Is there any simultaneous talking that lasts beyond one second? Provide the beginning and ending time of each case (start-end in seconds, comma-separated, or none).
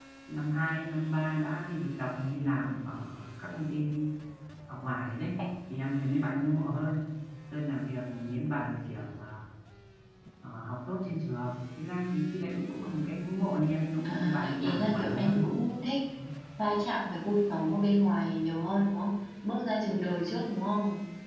14.0-15.5